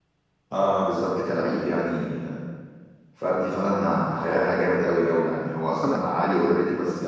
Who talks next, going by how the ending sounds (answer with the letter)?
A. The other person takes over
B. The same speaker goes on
B